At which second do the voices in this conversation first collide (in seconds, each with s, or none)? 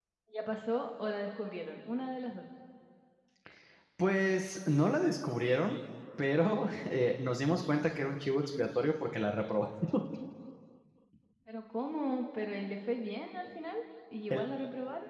none